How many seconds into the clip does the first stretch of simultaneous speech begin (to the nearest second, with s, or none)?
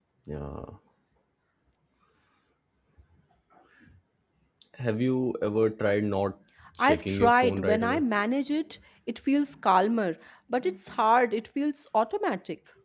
7 s